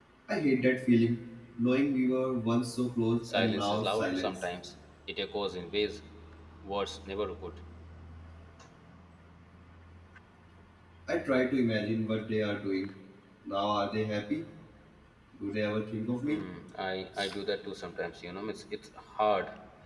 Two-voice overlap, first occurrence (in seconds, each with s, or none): 3.2 s